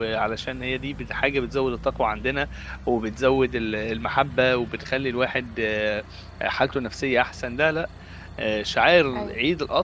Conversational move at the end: listening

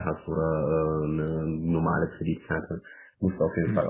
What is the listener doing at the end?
listening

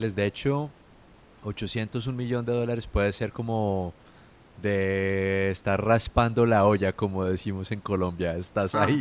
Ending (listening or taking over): taking over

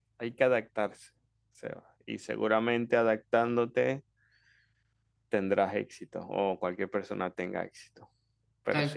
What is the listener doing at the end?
taking over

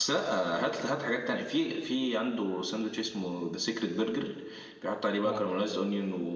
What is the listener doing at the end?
listening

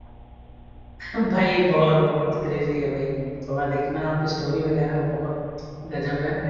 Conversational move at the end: listening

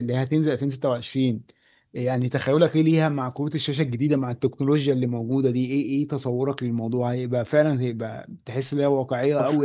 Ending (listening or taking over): listening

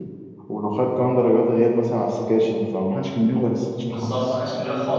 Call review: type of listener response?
taking over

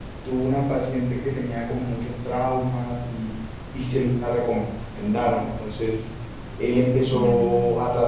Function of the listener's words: listening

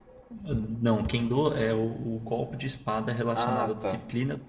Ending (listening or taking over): listening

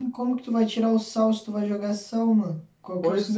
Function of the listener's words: taking over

